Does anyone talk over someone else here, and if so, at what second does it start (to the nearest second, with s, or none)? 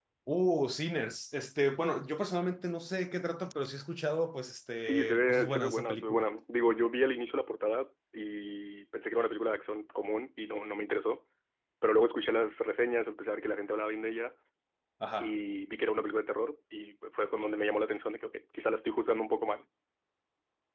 5 s